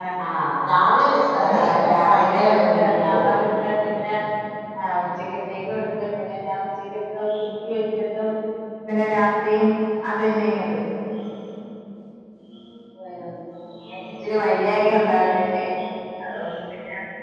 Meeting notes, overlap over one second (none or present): present